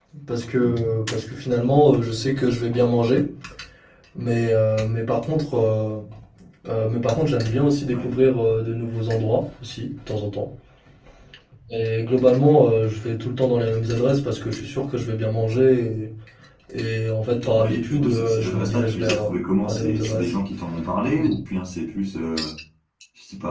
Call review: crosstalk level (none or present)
present